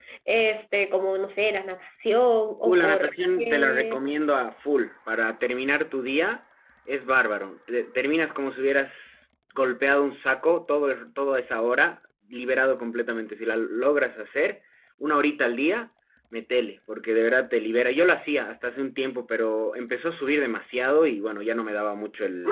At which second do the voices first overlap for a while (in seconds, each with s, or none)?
2.6 s